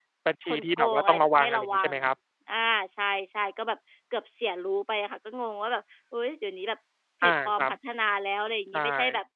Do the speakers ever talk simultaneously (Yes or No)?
Yes